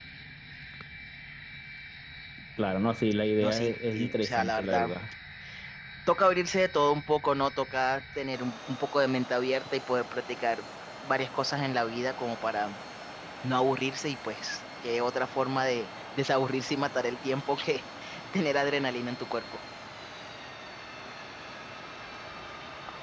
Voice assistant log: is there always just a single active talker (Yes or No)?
No